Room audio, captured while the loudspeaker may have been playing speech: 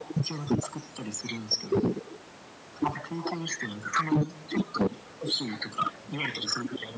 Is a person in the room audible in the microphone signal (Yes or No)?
No